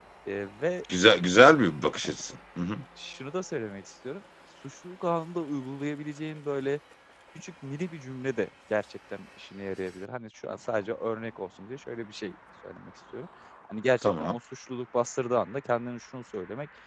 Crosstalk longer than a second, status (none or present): none